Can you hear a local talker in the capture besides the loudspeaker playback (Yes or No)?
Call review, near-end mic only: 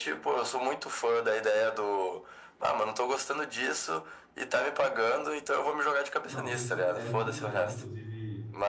Yes